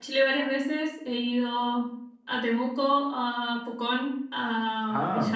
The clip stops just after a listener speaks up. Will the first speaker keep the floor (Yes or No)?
Yes